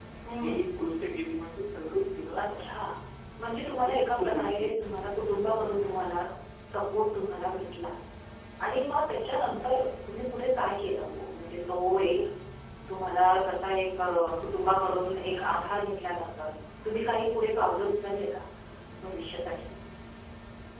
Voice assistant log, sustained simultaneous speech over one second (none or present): present